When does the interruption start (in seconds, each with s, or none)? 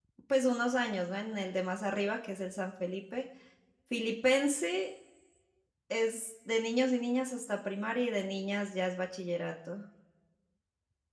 none